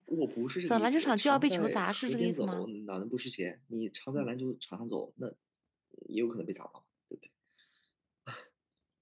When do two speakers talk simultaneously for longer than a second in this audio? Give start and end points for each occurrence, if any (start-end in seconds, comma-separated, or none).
0.7-2.7